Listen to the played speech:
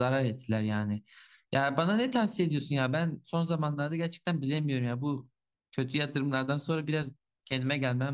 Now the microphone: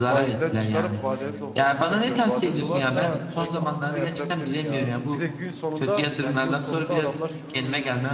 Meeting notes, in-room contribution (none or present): present